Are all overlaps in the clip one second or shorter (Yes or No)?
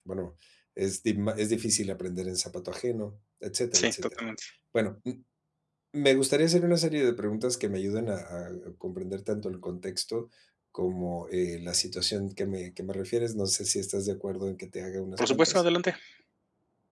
Yes